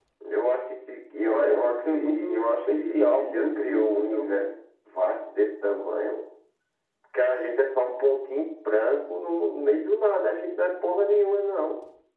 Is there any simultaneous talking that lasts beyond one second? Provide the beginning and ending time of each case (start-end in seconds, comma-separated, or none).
1.2-4.4